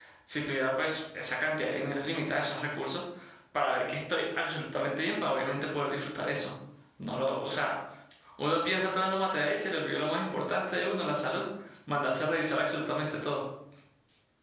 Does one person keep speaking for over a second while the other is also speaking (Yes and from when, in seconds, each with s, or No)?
No